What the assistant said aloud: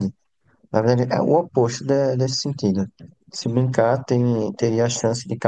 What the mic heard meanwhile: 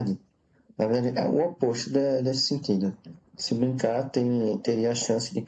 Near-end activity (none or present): none